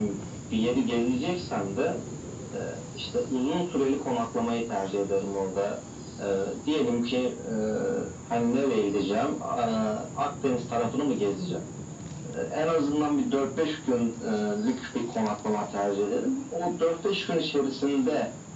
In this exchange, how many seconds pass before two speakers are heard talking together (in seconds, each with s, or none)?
none